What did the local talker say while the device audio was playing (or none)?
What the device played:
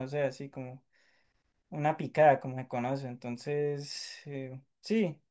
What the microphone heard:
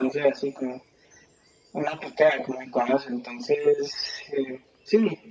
none